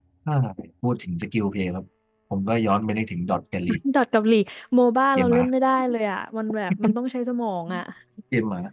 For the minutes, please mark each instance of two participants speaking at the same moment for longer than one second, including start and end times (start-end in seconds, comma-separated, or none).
none